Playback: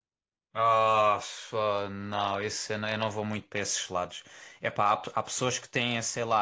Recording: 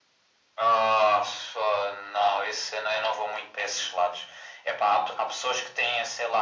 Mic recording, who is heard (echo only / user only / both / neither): echo only